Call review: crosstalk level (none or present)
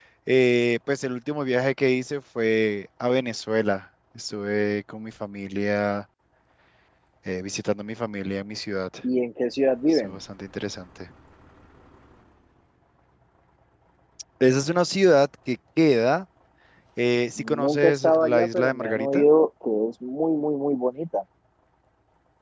present